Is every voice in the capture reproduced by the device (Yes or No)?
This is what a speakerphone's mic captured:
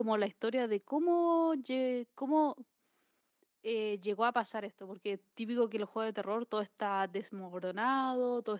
No